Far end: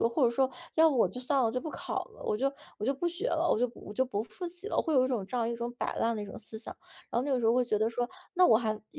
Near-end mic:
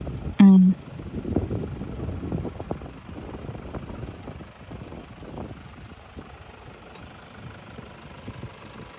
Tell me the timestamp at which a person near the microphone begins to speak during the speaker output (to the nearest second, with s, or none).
0 s